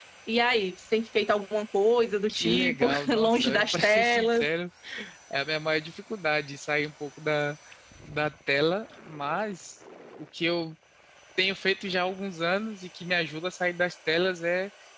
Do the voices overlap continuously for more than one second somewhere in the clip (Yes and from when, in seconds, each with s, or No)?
Yes, from 2.3 s